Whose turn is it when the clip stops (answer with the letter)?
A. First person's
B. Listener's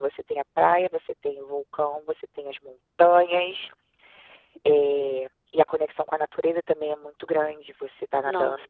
A